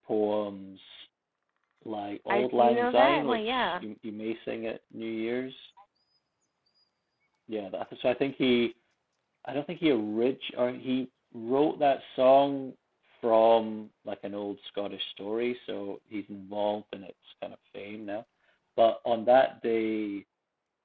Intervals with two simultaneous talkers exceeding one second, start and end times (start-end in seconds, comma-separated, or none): 2.3-3.9